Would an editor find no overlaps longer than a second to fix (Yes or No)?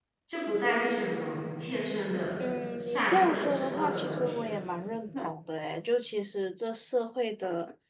No